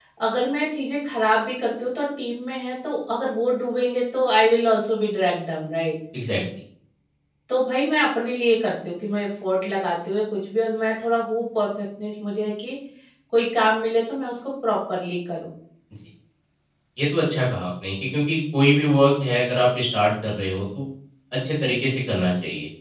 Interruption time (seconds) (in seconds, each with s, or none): none